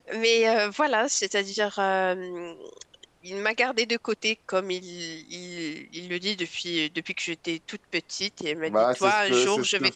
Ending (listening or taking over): taking over